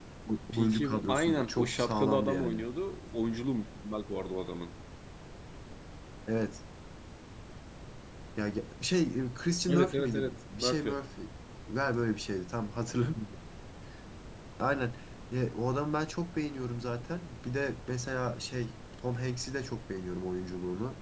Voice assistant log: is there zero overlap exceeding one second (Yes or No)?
No